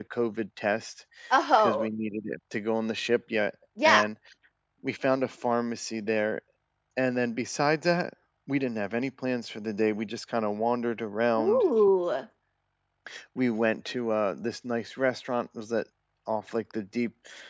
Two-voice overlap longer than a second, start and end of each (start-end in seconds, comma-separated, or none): none